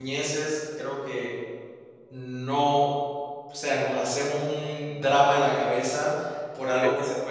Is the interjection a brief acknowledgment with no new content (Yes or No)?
Yes